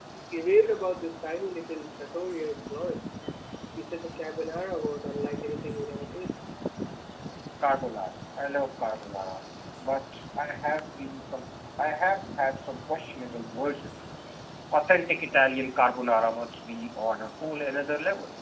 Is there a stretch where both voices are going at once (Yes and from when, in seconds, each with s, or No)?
No